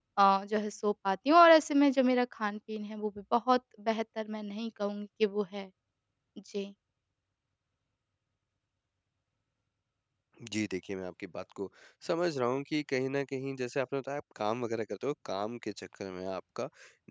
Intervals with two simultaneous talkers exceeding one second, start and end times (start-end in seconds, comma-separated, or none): none